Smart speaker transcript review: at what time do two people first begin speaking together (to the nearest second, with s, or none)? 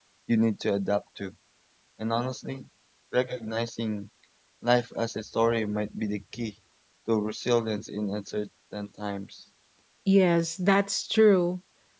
none